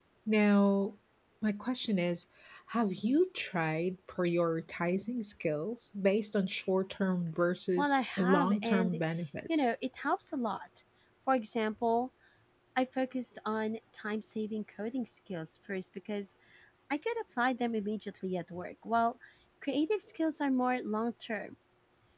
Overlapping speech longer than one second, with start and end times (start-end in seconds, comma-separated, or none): 7.8-9.0